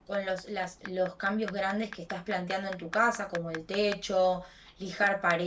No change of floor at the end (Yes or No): Yes